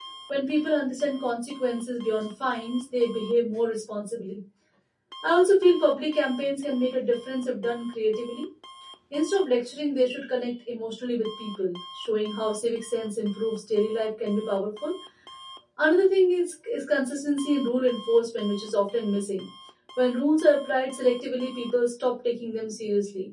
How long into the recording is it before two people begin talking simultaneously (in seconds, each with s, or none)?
none